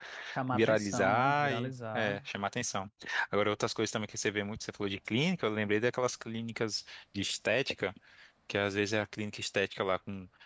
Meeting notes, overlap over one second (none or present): present